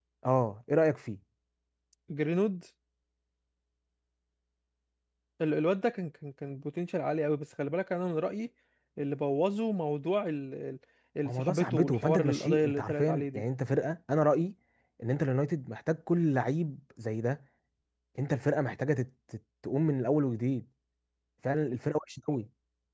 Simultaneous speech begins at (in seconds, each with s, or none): 11.2 s